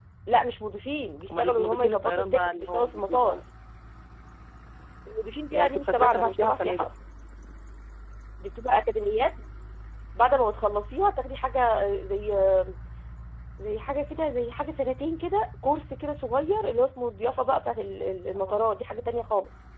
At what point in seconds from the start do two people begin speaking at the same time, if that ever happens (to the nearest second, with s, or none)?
1 s